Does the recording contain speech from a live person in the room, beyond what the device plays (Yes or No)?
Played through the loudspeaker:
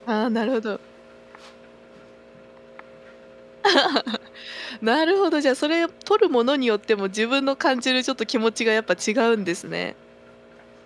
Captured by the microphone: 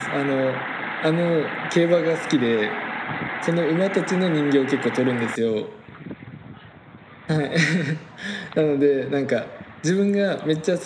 Yes